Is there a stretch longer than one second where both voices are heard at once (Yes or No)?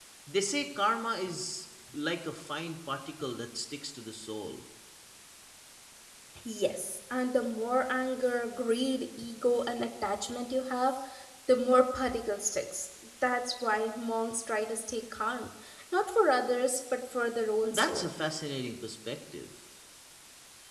No